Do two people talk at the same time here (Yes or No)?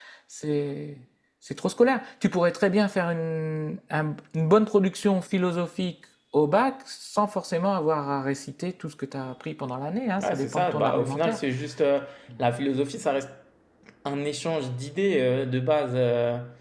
Yes